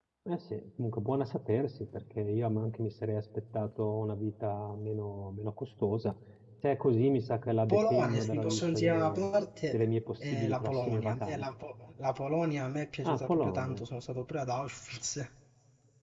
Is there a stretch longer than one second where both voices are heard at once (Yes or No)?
Yes